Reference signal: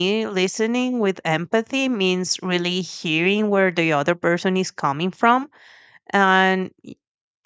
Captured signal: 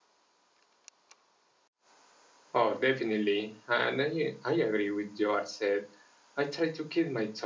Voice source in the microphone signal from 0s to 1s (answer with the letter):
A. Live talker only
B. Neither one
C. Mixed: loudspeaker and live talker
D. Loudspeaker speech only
B